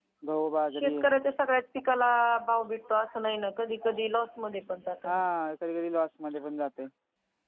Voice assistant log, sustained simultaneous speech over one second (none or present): none